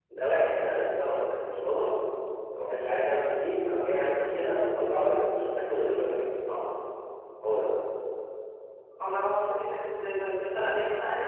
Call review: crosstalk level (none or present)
none